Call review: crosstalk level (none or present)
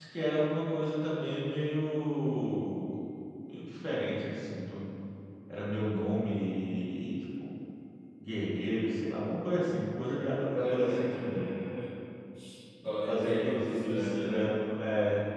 present